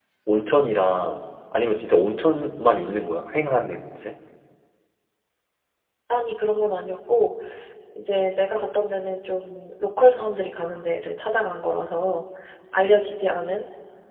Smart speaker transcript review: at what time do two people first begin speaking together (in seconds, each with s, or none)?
none